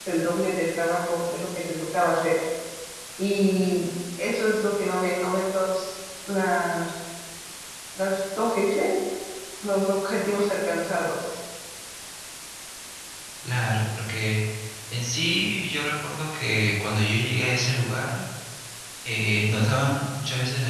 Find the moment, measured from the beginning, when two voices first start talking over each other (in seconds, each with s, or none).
none